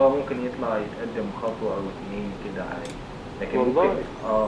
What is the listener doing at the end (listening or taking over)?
listening